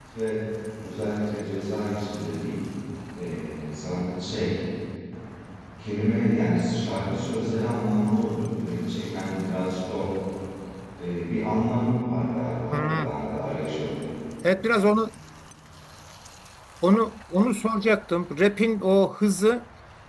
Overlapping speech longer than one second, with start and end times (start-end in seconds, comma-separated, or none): none